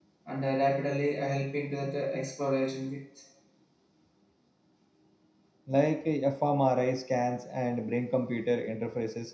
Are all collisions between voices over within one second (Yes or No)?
Yes